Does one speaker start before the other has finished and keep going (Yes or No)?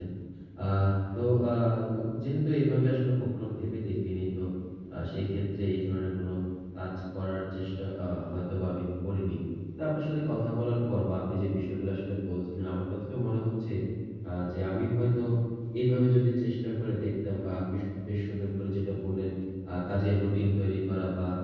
No